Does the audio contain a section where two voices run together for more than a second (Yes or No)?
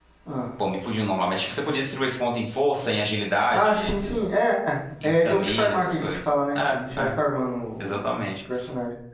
Yes